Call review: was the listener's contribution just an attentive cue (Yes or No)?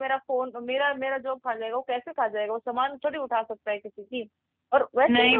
No